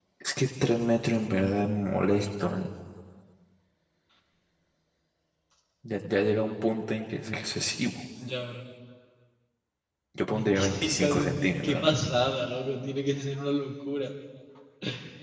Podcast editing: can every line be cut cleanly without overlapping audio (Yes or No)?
No